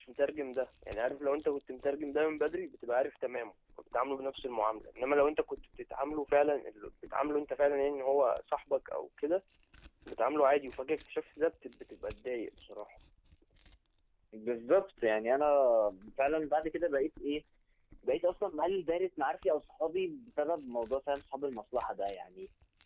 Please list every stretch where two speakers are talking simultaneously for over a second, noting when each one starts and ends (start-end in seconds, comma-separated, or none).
none